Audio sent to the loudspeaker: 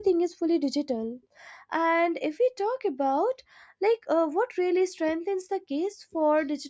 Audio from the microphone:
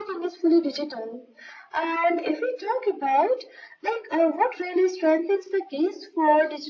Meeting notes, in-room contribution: none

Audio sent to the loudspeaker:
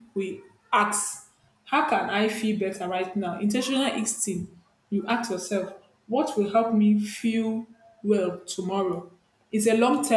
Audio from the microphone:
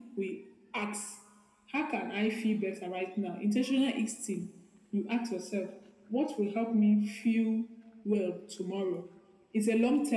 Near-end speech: none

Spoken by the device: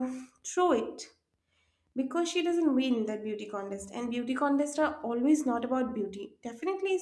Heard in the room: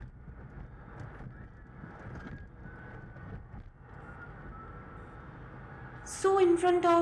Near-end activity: present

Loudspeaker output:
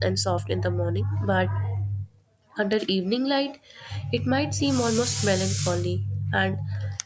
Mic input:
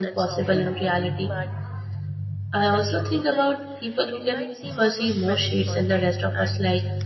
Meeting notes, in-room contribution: present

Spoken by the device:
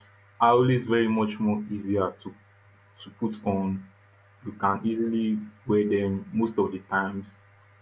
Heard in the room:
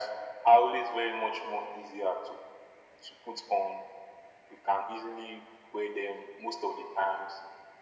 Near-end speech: none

